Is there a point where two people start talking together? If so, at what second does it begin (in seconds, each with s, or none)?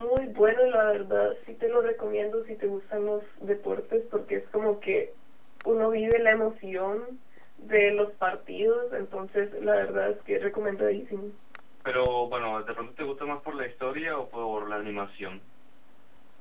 none